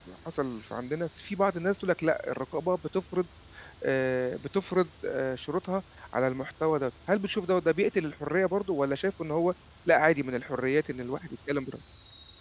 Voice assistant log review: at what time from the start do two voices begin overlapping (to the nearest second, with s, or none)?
none